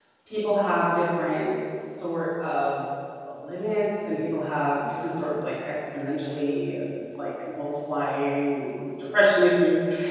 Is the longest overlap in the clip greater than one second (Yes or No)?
No